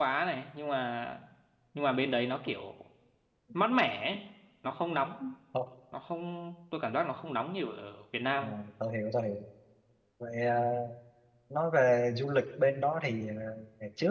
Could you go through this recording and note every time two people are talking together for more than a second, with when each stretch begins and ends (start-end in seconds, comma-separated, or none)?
none